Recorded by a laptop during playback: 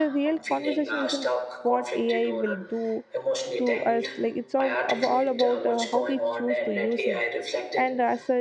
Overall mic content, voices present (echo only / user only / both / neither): both